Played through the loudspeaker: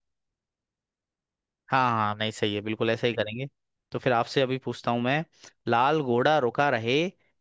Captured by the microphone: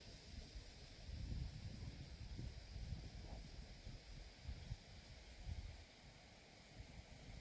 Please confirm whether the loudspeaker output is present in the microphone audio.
No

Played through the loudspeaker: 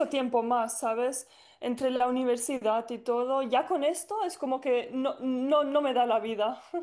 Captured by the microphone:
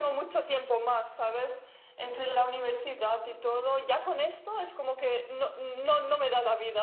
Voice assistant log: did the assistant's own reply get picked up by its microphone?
Yes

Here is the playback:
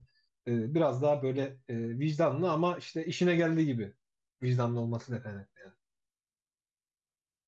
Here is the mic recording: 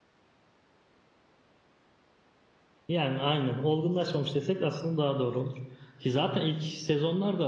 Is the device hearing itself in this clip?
No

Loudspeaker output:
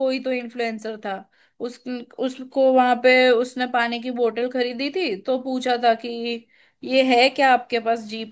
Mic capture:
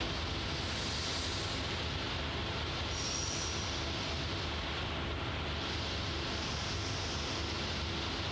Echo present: No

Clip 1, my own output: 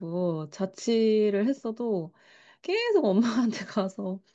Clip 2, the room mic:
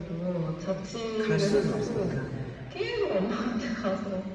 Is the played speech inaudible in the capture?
No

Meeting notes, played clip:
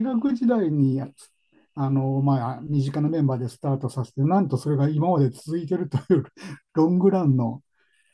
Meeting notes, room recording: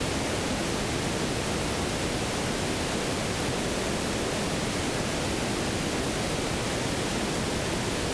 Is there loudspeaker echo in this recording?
No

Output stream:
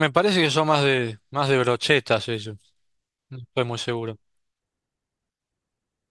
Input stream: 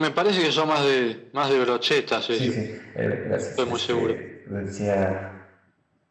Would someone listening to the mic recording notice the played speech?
Yes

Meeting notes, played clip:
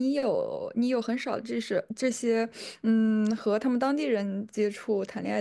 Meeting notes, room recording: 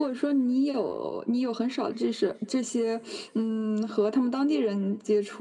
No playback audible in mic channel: No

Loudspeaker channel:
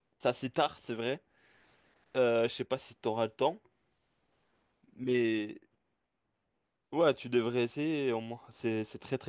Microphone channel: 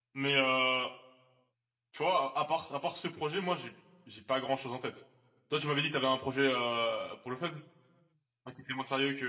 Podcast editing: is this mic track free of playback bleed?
Yes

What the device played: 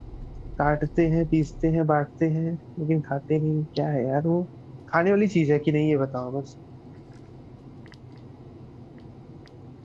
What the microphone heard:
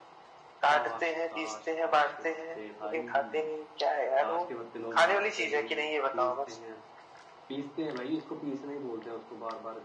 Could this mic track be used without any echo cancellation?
No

